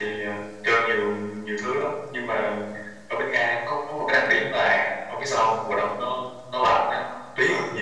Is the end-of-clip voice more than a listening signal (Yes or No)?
No